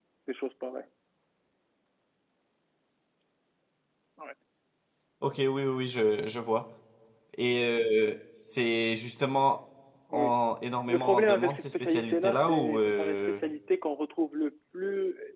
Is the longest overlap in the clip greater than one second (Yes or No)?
Yes